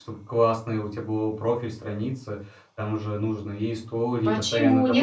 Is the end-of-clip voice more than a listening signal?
Yes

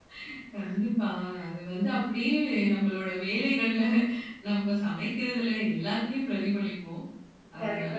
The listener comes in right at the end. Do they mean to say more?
Yes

